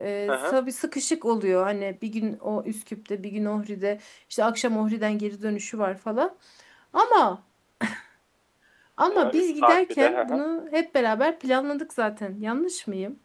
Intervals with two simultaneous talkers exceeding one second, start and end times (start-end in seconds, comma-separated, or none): 9.1-10.4